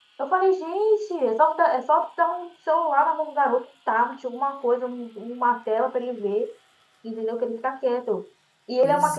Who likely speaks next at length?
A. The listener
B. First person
B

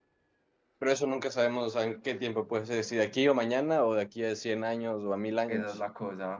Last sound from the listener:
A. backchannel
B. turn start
B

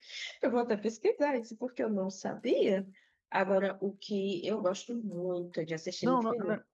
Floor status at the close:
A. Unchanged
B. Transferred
B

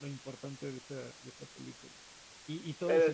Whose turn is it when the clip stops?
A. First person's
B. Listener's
A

